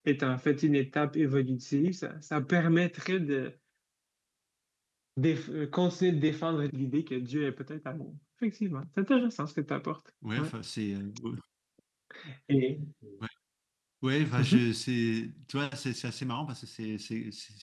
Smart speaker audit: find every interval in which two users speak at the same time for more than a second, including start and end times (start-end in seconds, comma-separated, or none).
none